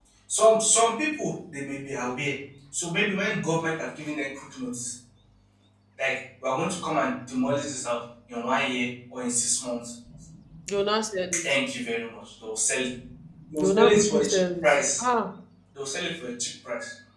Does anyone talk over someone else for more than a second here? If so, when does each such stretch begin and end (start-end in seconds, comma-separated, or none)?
13.6-15.0